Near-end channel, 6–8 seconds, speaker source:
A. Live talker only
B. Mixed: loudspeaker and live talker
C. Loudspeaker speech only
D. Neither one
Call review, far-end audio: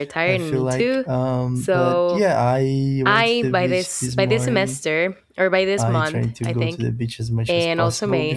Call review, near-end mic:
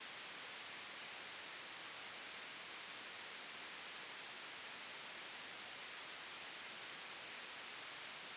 D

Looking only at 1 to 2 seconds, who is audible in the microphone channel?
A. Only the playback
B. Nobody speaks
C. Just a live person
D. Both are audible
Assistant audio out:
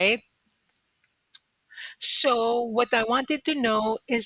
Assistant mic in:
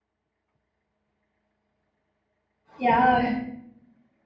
B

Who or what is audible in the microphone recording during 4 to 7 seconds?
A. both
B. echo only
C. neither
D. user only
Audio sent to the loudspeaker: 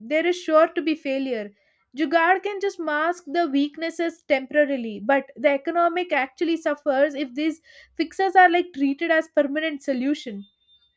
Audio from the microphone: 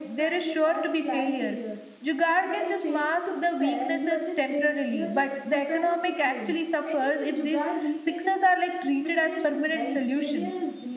A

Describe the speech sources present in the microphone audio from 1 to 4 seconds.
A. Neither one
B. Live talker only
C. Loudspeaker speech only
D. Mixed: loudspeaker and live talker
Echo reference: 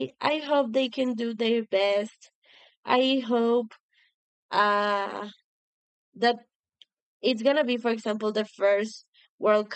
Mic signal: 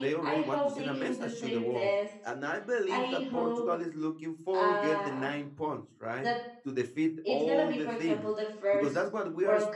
D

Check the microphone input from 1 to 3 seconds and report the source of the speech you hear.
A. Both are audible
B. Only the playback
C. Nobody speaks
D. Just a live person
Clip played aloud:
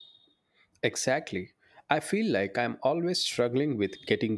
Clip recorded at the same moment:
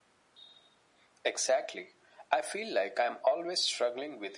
B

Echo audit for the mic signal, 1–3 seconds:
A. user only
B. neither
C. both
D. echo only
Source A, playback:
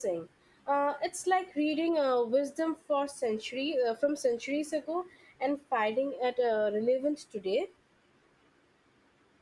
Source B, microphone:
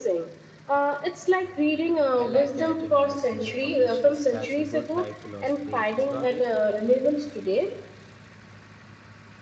C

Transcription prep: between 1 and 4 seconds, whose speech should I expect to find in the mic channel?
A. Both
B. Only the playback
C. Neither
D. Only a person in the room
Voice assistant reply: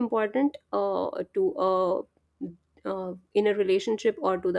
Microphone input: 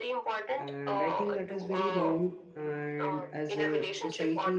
A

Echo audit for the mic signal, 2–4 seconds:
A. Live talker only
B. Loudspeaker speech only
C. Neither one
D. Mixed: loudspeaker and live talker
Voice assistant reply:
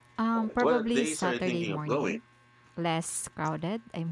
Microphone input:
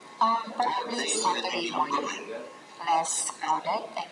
D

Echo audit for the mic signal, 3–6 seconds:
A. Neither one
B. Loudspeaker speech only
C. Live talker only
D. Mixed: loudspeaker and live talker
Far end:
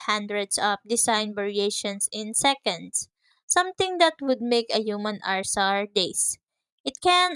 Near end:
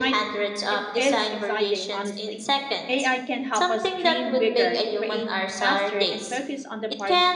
D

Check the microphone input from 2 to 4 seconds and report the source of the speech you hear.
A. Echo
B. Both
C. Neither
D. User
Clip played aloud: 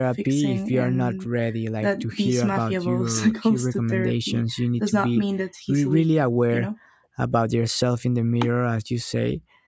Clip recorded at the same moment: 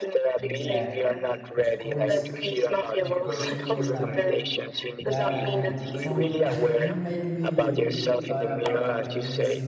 B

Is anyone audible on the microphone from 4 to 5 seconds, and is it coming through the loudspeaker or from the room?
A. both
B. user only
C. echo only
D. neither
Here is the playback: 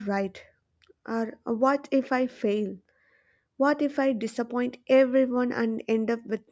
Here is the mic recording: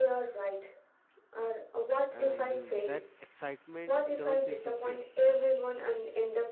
A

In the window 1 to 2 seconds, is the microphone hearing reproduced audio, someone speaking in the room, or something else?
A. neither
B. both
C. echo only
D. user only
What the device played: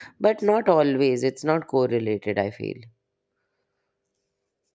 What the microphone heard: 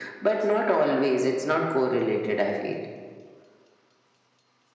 C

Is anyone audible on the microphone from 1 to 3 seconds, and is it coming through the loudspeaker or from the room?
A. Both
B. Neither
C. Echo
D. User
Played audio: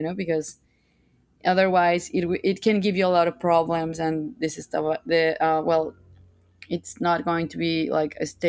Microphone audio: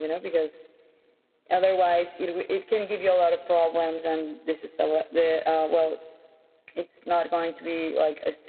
C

